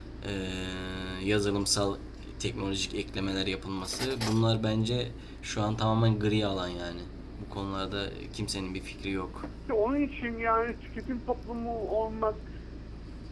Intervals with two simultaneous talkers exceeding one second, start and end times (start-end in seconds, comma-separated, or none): none